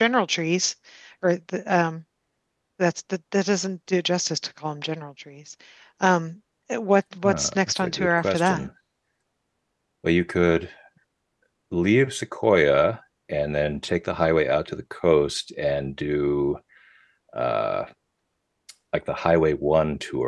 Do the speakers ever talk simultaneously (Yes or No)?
Yes